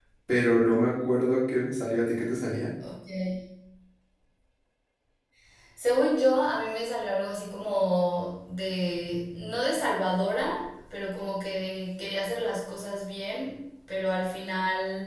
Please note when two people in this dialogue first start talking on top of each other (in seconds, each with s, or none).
none